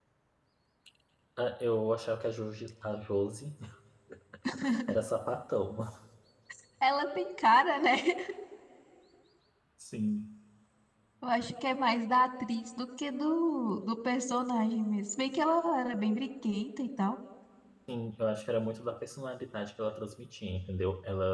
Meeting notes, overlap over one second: none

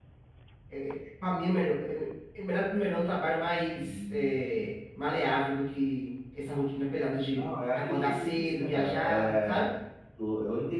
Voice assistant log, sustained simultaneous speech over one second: present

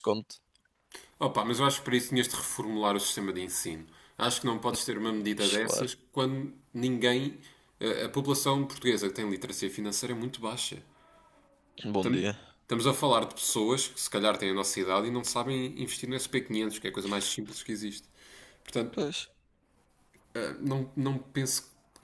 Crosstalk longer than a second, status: none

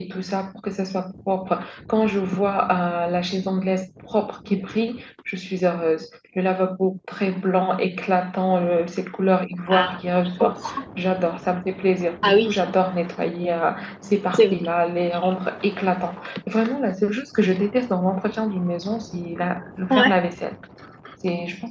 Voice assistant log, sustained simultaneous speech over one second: none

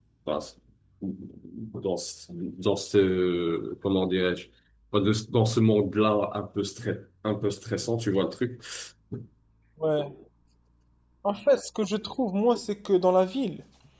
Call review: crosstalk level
none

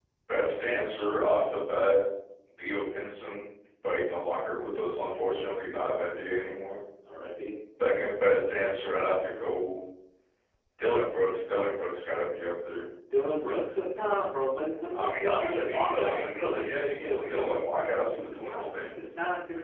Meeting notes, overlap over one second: present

